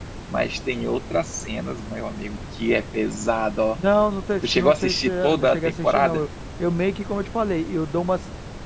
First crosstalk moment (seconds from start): 4.5 s

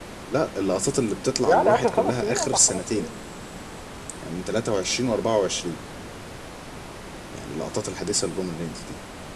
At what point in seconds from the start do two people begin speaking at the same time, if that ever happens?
1.4 s

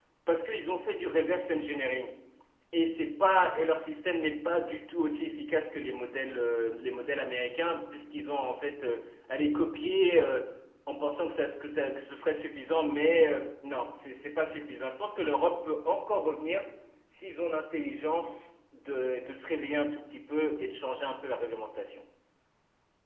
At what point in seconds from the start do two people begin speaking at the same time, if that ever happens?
none

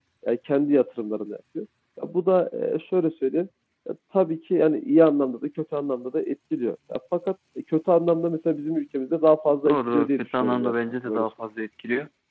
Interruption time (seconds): 9.7 s

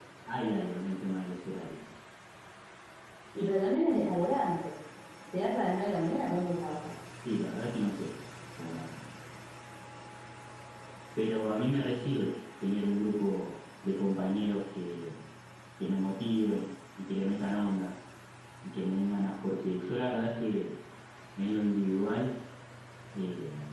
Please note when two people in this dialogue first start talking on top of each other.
none

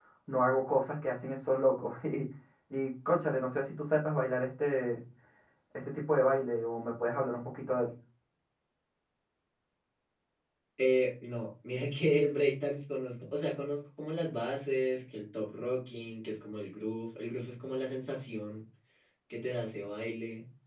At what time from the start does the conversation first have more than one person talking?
none

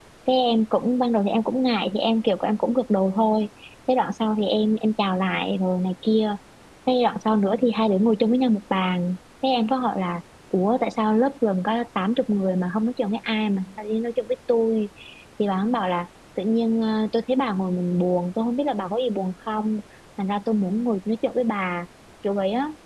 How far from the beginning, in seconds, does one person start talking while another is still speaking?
none

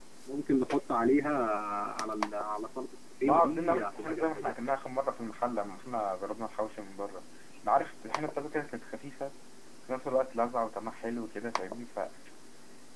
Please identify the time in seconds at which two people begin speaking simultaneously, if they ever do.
3.2 s

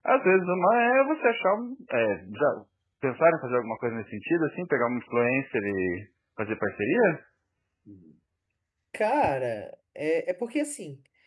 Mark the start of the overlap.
none

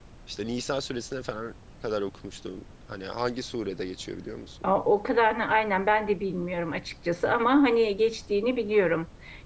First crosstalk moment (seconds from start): none

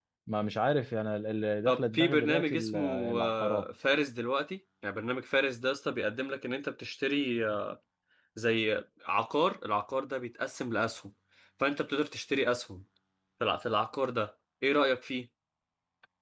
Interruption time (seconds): 1.7 s

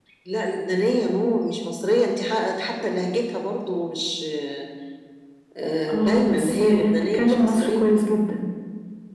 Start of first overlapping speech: 5.9 s

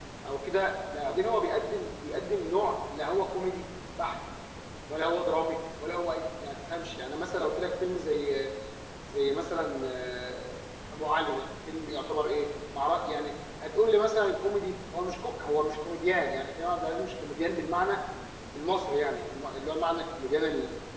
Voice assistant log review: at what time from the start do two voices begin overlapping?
none

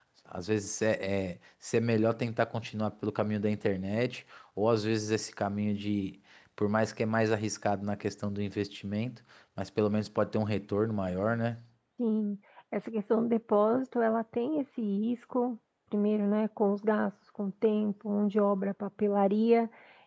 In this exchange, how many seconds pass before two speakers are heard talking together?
none

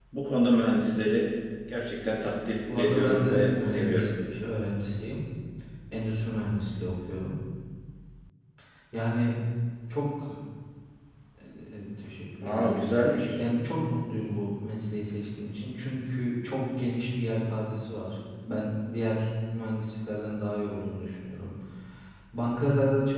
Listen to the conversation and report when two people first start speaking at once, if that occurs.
2.8 s

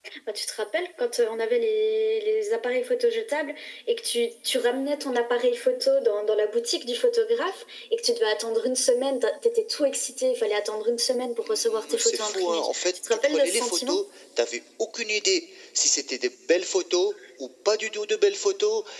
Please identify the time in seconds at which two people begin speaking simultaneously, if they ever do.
11.5 s

